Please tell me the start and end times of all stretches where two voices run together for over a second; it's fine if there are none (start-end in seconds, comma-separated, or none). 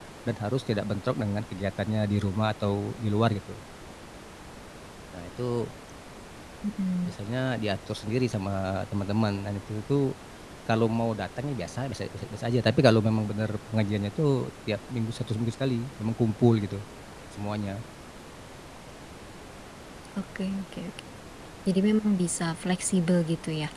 none